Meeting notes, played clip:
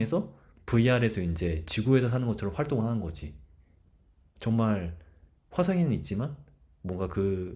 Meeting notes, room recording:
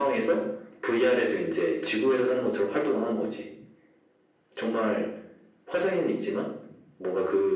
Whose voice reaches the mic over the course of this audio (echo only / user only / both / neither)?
echo only